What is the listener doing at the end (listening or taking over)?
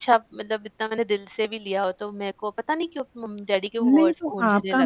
taking over